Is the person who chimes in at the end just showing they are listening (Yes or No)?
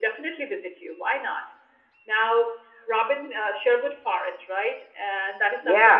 No